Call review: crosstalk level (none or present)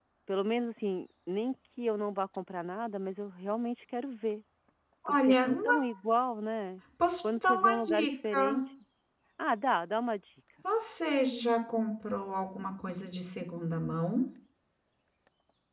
present